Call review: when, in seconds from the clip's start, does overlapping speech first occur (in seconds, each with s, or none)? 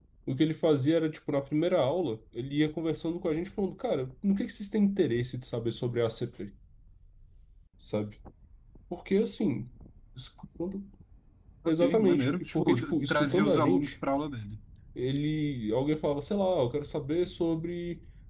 11.6 s